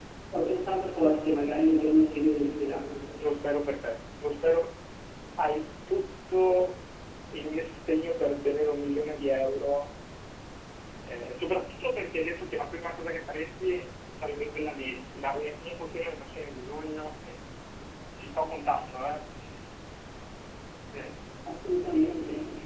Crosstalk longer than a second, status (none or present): none